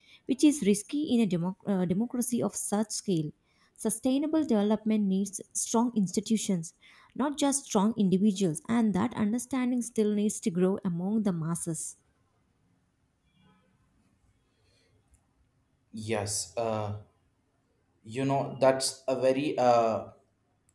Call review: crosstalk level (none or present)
none